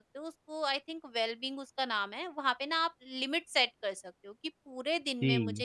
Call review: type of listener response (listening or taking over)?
listening